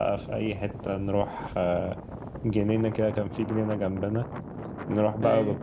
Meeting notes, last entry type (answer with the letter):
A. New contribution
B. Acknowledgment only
B